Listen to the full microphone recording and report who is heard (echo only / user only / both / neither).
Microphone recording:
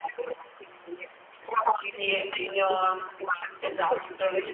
both